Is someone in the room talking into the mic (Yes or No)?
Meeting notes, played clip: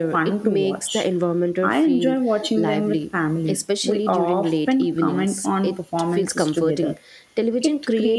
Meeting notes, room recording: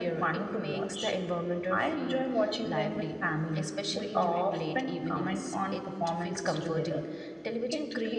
No